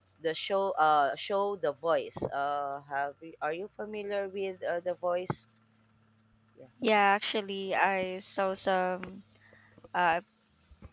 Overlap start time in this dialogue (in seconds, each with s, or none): none